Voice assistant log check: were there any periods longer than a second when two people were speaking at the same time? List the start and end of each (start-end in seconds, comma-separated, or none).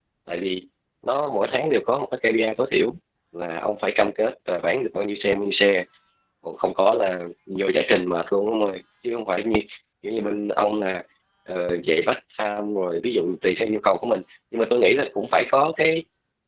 none